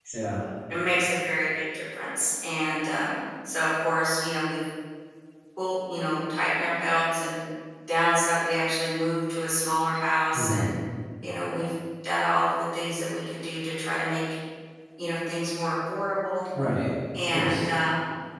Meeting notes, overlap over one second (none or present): none